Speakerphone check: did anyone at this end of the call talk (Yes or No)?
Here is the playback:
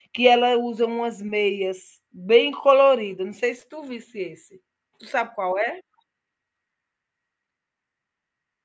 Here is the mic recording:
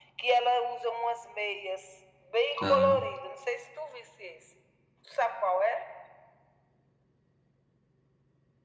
Yes